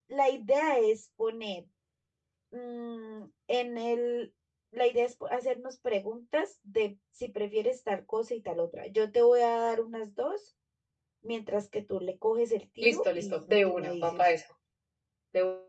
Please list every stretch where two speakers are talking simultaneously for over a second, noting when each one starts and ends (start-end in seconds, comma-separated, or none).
12.8-14.3